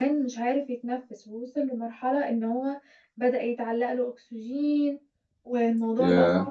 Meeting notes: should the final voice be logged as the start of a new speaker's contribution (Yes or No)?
No